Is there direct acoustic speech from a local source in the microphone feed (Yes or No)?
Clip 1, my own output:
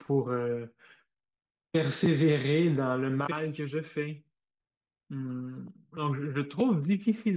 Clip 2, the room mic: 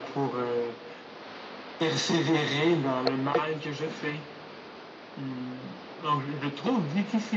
No